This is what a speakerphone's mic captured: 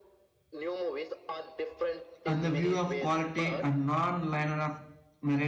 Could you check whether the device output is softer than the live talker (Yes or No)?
Yes